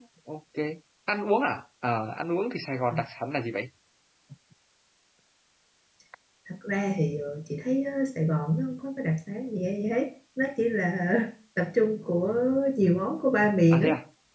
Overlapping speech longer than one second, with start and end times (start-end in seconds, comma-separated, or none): none